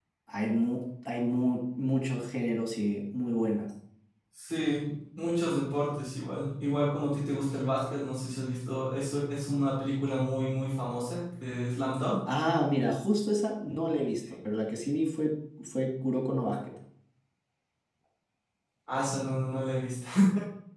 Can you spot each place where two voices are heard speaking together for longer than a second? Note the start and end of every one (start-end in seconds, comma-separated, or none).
none